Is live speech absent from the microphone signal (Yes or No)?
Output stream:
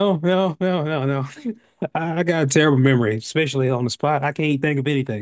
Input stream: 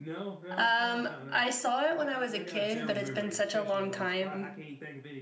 No